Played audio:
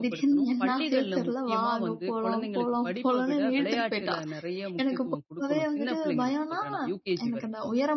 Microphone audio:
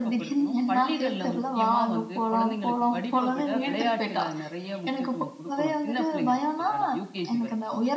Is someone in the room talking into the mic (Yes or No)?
No